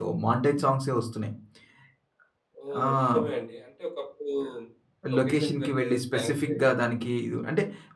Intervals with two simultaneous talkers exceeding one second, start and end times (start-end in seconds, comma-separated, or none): 5.2-6.7